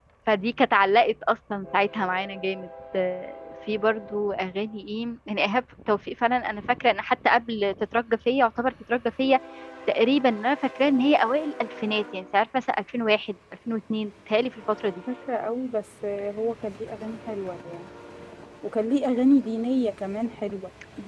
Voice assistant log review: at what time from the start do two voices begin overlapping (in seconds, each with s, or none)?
none